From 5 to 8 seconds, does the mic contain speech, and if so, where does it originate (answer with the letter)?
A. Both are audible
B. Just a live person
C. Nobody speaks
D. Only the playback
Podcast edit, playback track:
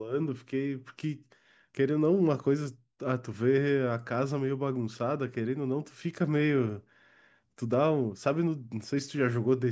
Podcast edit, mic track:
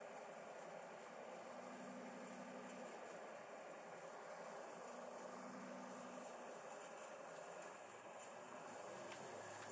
C